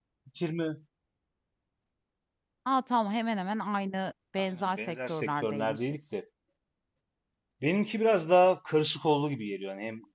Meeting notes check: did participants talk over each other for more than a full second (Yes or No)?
Yes